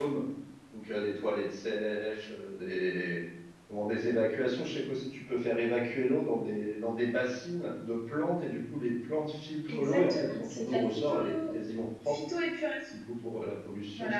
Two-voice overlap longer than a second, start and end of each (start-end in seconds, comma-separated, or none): 9.7-11.5